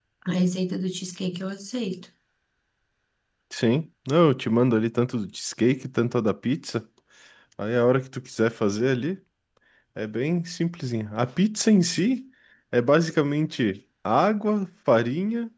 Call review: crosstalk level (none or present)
none